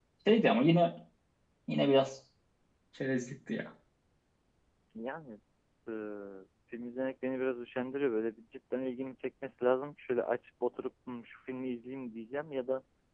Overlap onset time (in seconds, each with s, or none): none